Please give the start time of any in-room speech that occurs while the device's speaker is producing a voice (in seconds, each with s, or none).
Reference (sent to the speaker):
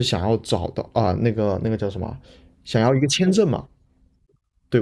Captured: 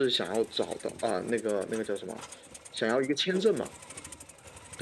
none